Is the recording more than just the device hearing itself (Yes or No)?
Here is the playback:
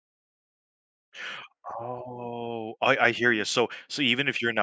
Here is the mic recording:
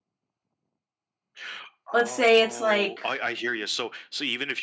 Yes